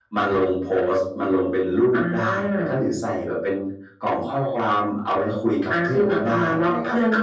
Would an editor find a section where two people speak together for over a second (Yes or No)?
Yes